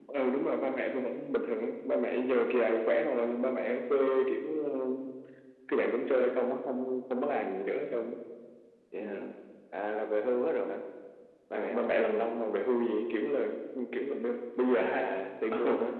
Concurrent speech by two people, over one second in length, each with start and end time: none

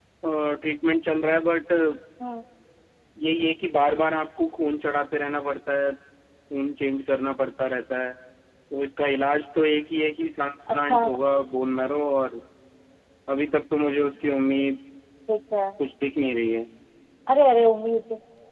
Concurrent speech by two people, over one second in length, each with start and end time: none

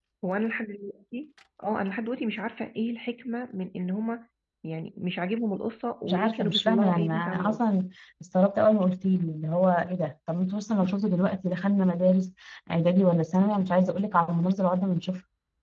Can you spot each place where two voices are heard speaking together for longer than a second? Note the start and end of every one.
6.1-7.6

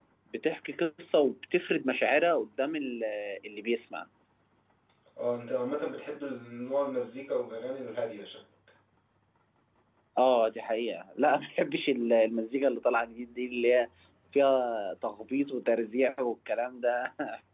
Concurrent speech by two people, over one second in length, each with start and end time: none

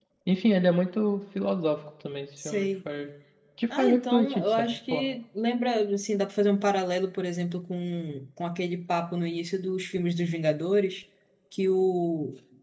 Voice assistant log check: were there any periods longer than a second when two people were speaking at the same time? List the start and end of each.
3.8-5.0

